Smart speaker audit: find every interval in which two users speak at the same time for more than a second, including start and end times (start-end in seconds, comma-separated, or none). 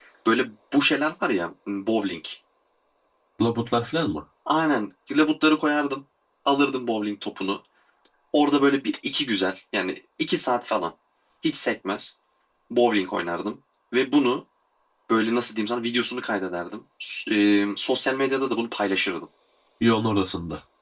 none